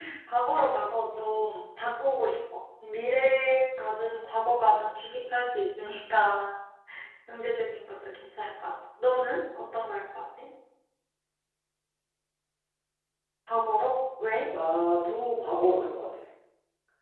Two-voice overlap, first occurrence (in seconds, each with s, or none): none